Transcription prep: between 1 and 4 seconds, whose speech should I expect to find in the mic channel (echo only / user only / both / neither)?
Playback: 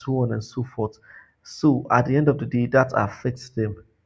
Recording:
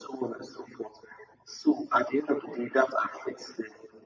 echo only